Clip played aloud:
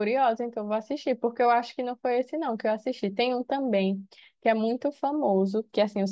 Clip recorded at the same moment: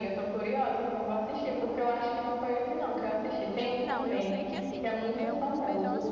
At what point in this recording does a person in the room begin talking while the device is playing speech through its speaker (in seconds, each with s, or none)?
3.5 s